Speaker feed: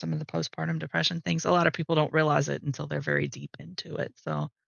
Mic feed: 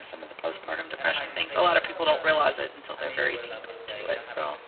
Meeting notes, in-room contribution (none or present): present